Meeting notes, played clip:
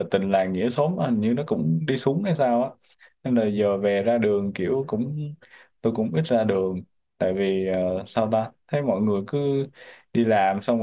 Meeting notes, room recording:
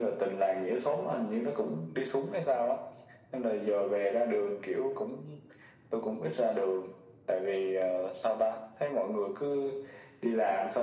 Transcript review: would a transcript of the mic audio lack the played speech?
No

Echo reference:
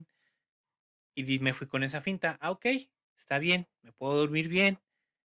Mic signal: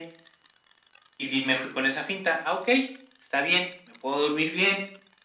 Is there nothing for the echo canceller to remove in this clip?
No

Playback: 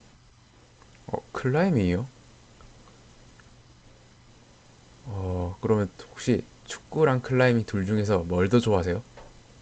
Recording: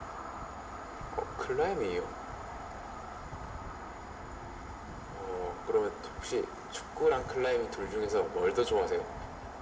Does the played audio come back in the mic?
Yes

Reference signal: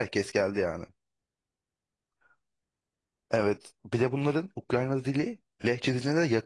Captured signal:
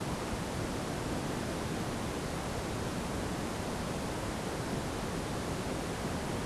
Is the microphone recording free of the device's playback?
Yes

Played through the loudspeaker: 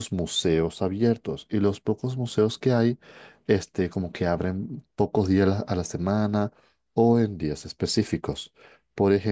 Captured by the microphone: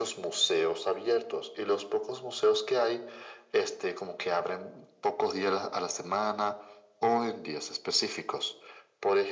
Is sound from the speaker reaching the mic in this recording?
Yes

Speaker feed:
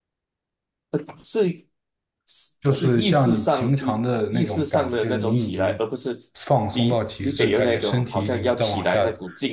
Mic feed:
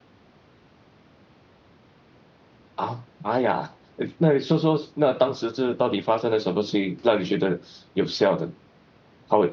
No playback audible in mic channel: Yes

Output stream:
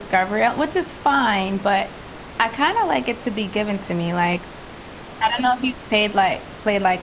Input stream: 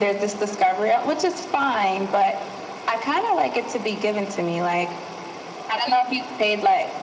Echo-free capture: No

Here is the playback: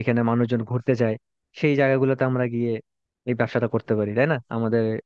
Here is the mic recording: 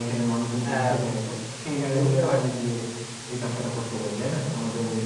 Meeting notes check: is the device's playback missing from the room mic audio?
No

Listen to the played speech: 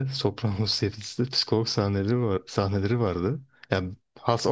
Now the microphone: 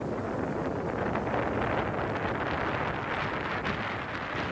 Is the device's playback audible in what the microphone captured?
No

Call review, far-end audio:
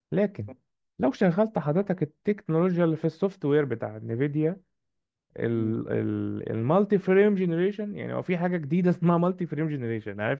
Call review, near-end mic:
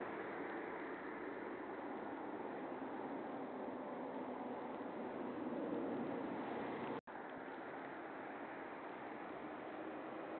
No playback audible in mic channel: Yes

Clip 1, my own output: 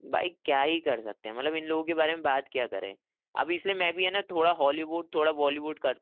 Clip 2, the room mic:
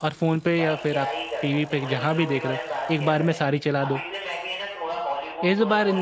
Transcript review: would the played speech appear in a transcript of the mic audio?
Yes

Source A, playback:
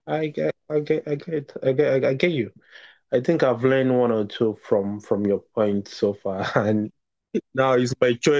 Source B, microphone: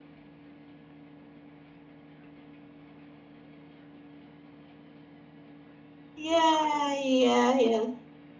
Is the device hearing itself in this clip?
No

